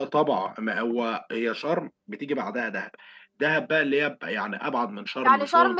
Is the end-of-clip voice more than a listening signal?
Yes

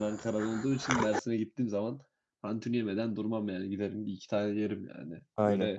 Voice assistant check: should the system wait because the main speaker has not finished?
No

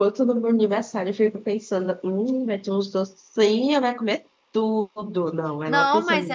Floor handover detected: Yes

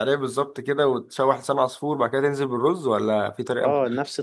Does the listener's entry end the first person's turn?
Yes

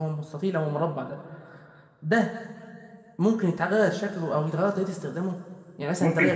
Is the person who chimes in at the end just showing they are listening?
No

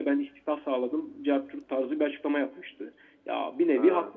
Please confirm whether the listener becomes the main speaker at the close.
No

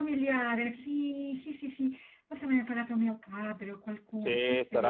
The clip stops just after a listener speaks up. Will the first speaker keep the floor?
No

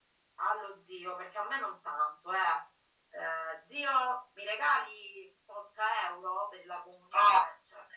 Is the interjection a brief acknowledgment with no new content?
No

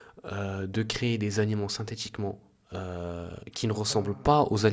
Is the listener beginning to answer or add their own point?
No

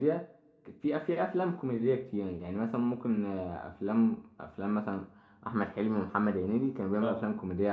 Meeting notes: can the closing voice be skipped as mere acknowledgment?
Yes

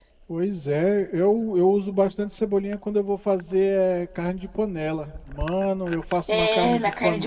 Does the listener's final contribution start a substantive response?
Yes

